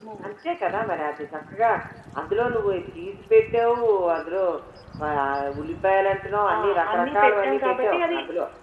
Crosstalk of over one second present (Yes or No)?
Yes